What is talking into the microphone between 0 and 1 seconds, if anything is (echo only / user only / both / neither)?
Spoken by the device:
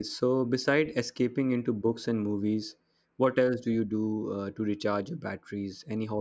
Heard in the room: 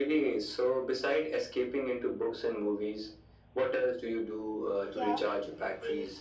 echo only